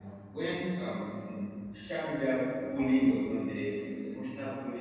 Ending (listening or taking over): listening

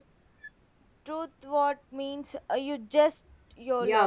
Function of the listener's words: taking over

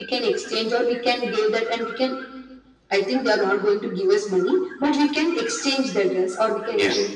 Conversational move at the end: taking over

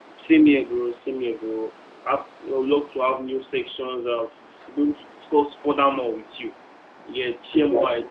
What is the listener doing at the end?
listening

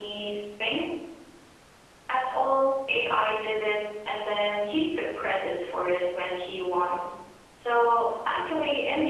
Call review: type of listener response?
listening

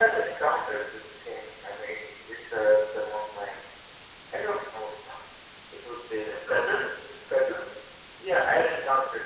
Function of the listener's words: taking over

